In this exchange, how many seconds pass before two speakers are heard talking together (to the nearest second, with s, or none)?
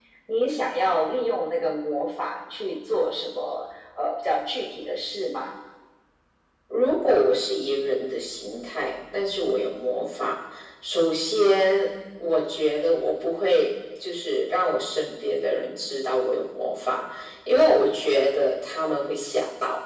none